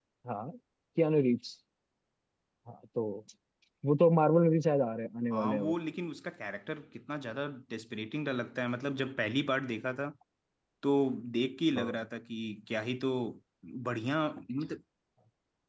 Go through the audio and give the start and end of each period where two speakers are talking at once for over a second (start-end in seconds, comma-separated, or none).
none